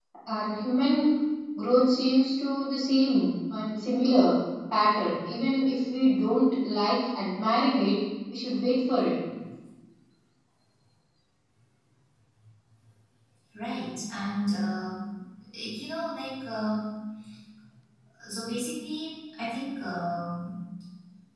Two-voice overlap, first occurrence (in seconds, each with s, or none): none